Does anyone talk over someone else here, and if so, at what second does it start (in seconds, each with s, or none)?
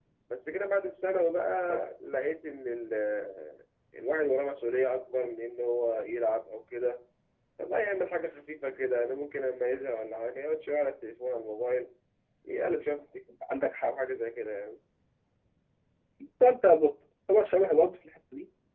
none